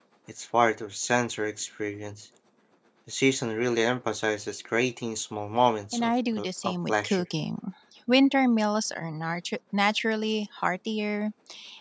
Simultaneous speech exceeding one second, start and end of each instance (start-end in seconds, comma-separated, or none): 5.9-7.2